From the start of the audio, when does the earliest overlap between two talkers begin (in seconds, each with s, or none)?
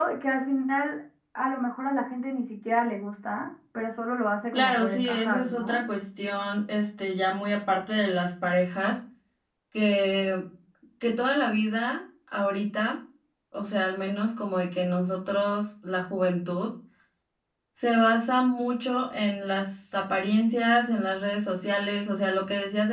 4.5 s